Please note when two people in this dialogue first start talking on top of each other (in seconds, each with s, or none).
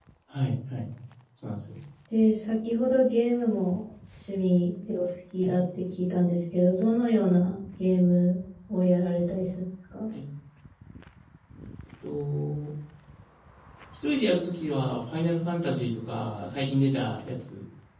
none